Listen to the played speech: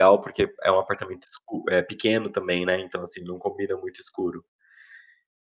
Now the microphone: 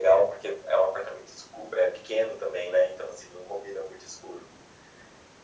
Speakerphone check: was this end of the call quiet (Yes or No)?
Yes